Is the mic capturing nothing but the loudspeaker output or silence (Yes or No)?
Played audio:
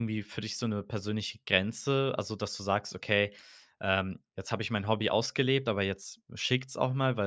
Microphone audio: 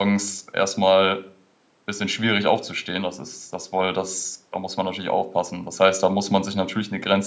No